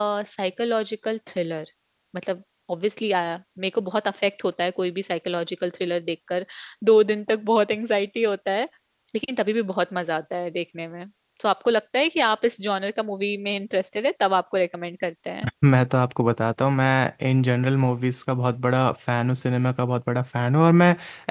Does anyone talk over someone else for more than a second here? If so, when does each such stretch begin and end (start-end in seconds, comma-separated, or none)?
none